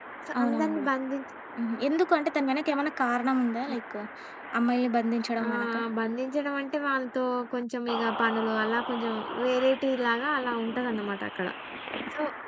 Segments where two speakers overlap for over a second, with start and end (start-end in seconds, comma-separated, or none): none